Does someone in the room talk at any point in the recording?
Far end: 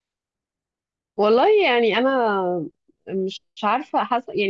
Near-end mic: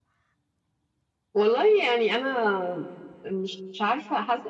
No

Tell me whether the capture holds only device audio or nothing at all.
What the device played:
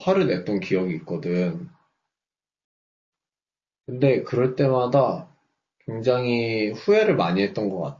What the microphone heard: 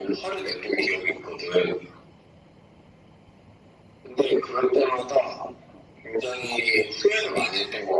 Yes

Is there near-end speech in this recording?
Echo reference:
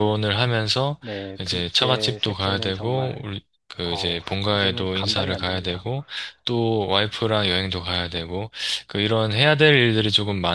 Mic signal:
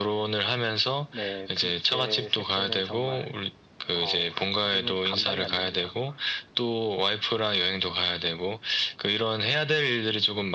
No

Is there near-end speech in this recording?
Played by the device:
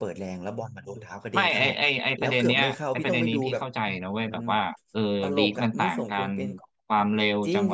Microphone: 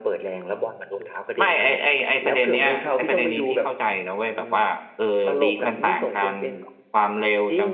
No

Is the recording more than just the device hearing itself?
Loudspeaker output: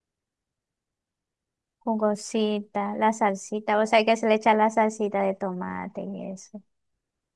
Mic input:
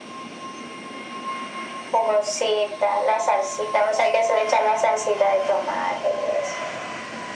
No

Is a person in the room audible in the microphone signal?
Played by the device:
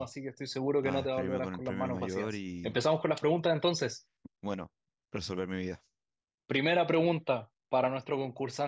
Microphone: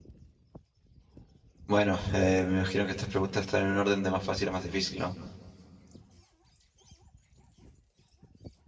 Yes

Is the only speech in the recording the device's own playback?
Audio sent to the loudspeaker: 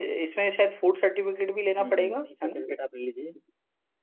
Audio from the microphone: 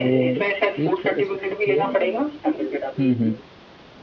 No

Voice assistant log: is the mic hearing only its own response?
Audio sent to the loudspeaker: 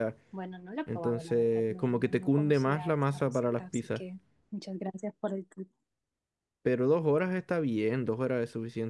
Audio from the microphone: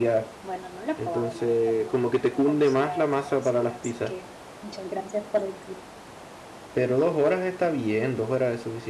Yes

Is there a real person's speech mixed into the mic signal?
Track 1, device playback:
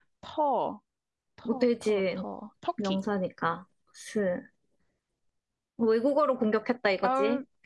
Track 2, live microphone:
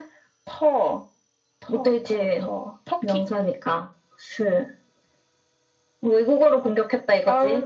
No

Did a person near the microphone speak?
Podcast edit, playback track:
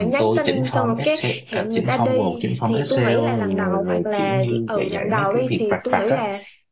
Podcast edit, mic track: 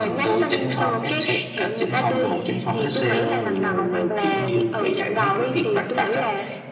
No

